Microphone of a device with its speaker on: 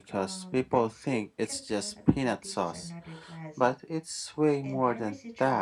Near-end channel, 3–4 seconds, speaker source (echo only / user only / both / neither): both